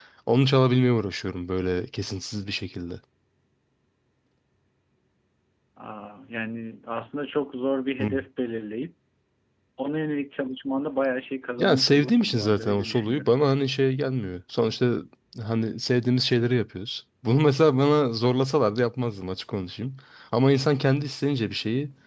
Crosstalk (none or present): present